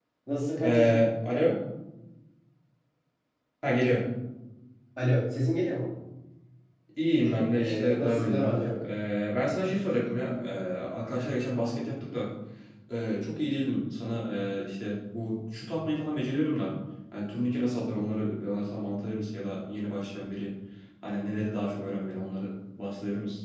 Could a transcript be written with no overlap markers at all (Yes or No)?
No